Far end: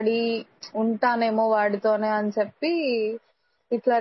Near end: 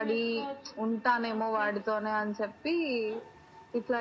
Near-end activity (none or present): present